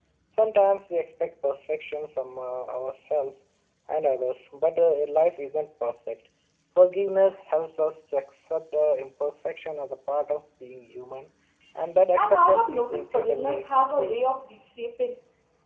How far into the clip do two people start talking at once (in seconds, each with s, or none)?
12.2 s